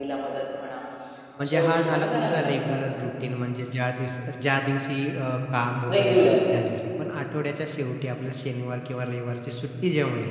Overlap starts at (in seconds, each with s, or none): 1.4 s